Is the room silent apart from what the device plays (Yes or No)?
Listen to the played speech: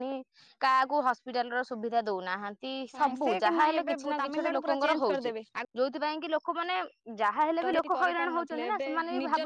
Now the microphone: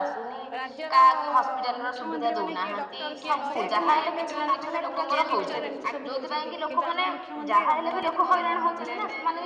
No